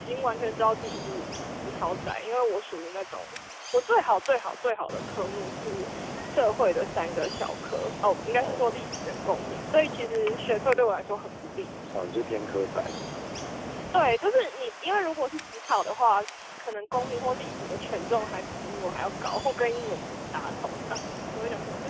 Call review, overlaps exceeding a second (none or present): none